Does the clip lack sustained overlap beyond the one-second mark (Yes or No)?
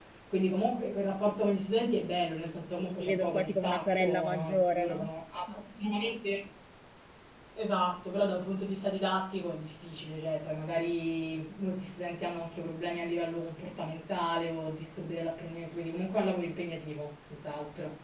No